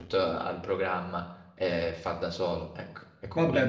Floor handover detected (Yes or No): Yes